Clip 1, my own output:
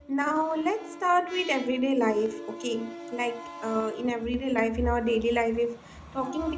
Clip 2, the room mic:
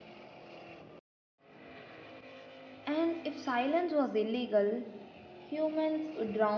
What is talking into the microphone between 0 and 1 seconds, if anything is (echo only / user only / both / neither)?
neither